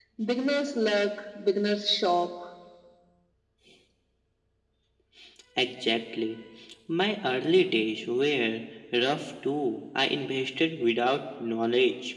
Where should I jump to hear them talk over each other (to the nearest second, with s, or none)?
none